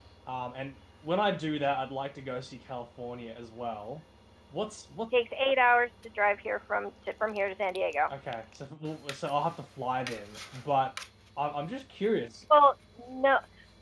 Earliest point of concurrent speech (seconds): none

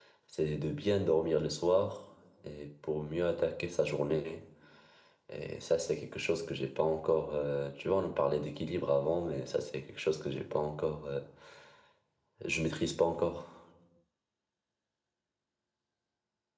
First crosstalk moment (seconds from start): none

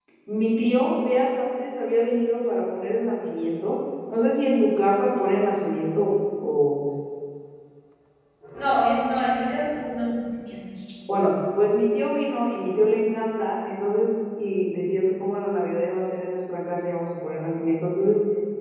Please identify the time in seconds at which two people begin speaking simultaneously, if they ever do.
none

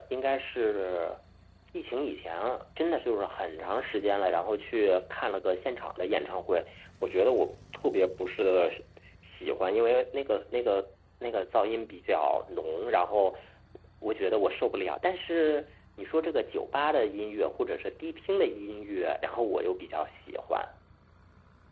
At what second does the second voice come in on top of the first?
none

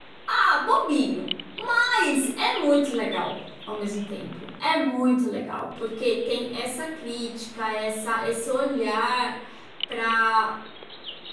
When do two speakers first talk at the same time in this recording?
none

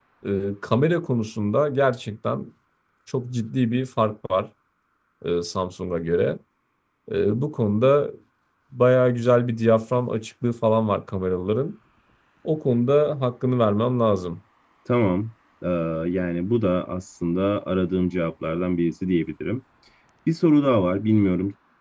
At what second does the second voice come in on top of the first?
none

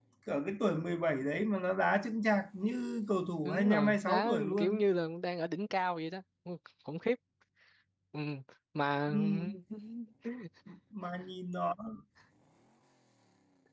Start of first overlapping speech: 3.4 s

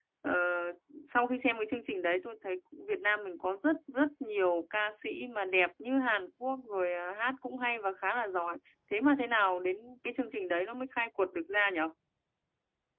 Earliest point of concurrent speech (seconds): none

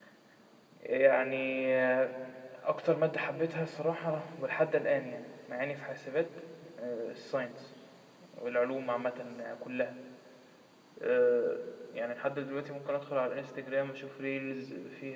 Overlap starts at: none

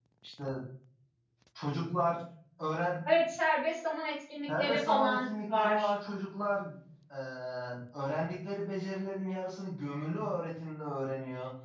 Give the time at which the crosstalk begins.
4.5 s

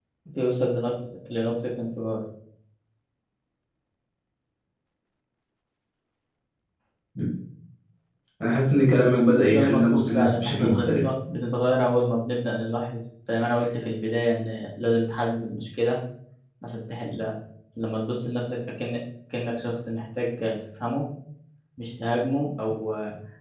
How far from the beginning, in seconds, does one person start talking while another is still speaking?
9.5 s

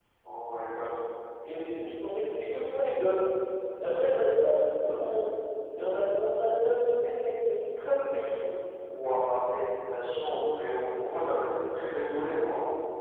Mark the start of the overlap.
none

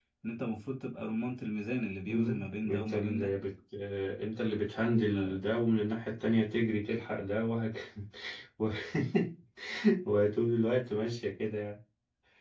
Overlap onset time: 2.0 s

